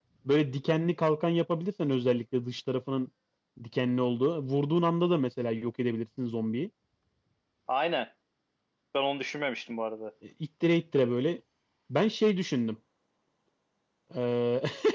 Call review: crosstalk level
none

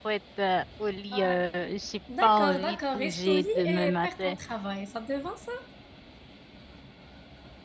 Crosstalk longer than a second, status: present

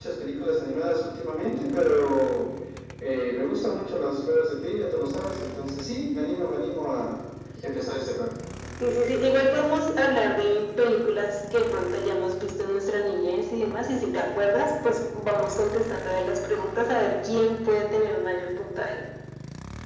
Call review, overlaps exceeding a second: none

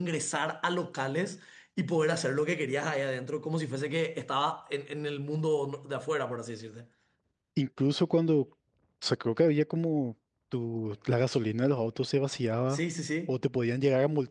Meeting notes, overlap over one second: none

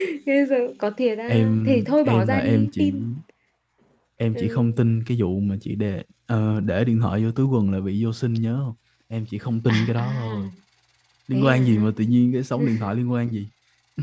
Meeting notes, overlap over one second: present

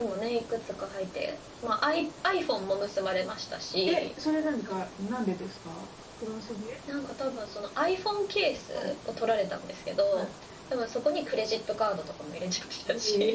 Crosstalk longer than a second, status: none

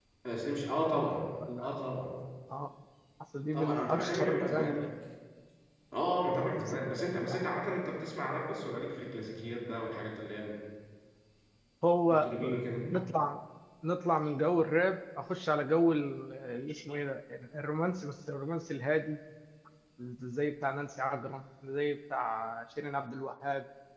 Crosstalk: present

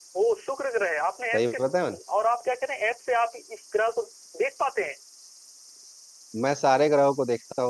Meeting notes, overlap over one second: none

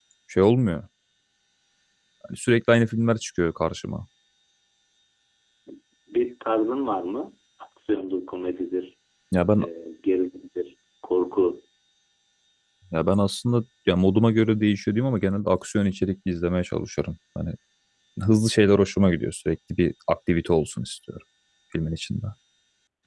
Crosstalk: none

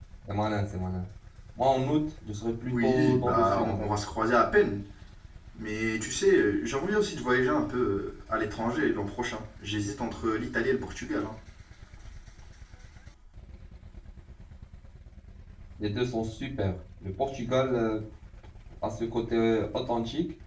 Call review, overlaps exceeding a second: present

